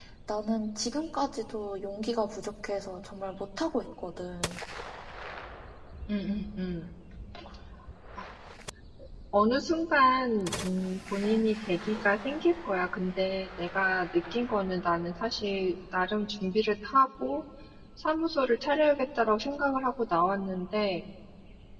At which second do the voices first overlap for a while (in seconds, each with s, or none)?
none